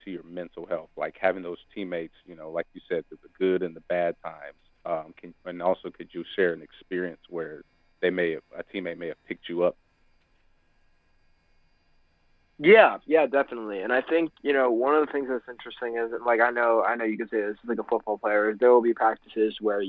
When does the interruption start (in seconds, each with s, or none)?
none